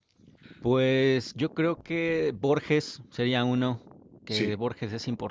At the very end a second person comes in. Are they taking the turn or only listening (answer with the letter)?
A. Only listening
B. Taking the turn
A